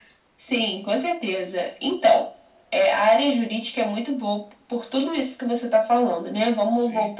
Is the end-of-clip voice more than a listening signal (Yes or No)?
No